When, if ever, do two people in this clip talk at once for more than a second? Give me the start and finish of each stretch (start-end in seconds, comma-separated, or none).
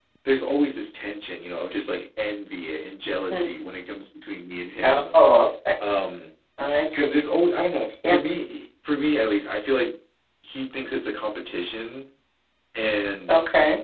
none